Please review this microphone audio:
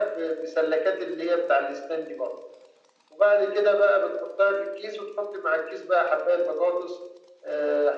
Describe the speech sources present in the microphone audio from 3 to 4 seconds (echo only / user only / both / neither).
echo only